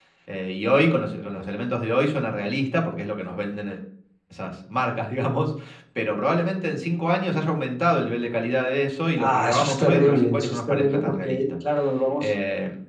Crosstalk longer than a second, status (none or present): present